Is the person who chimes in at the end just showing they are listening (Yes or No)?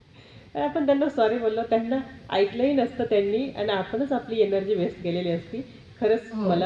Yes